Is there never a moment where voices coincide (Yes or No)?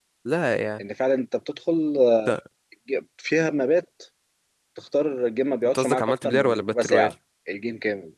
No